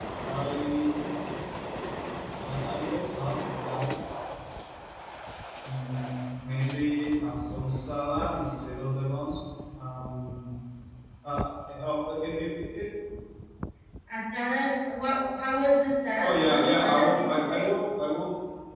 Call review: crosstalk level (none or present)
present